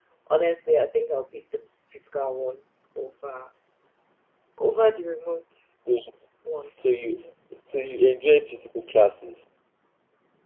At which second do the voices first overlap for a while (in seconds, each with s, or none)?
none